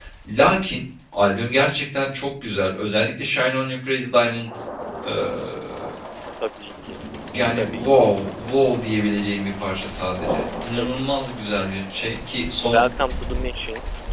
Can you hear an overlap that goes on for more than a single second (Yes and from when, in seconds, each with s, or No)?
No